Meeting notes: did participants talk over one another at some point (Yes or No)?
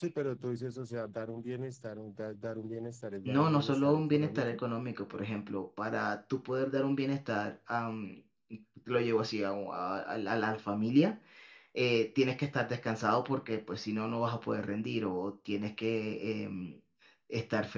Yes